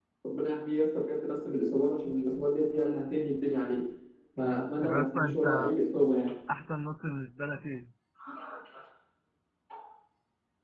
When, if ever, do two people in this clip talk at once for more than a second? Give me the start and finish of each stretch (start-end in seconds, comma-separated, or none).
4.4-5.7